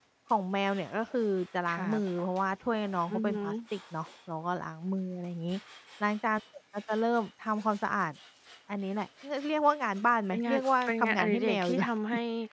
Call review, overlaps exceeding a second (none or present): present